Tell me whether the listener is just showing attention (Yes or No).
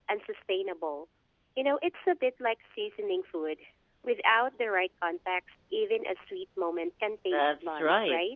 No